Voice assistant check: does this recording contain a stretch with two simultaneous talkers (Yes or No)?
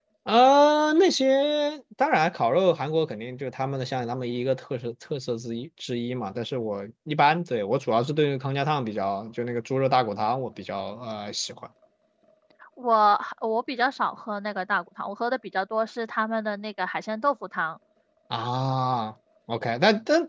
No